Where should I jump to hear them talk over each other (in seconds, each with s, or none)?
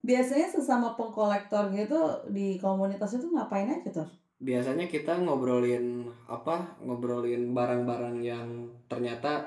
none